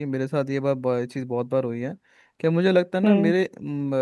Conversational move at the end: listening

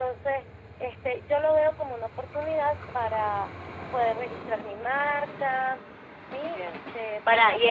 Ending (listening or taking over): taking over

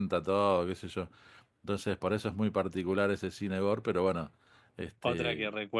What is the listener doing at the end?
taking over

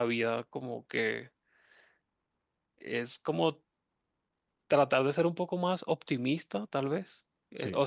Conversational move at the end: listening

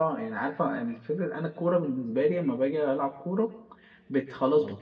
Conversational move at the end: listening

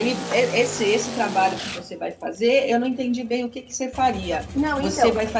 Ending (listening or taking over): listening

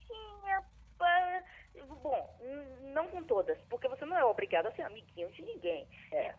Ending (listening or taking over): listening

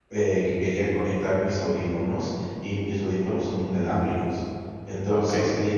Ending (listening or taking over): listening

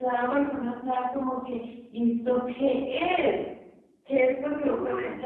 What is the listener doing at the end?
listening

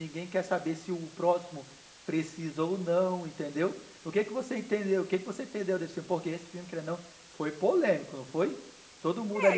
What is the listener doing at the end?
taking over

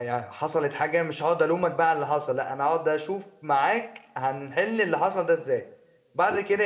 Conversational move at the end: listening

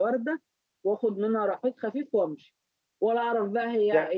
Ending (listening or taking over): taking over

